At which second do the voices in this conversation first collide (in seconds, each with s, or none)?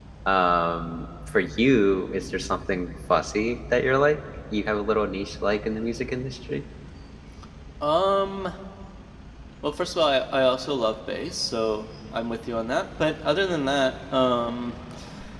none